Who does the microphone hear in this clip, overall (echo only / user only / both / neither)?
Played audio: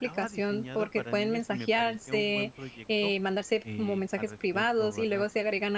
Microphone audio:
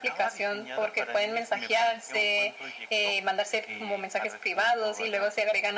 echo only